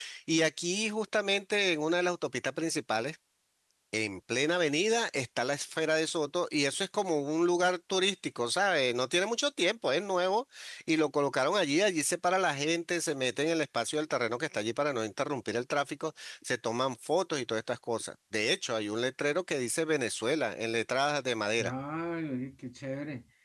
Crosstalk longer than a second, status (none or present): none